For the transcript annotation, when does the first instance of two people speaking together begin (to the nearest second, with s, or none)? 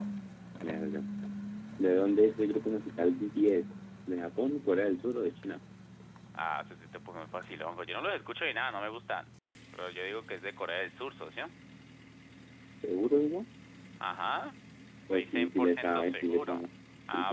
15 s